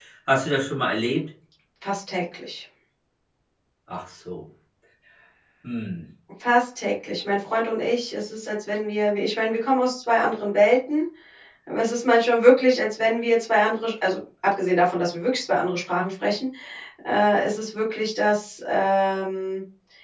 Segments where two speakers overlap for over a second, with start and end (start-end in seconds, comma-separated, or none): none